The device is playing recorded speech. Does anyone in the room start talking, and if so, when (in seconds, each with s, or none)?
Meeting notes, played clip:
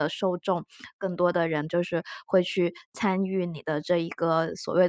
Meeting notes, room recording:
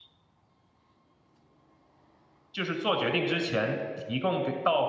2.5 s